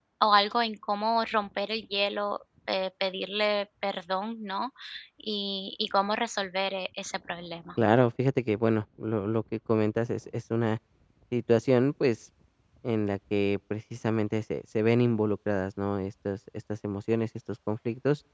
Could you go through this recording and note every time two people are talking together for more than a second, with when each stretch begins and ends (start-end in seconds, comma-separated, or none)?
none